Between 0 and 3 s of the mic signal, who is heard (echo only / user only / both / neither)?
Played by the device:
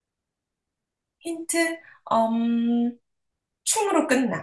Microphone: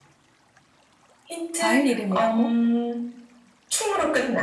both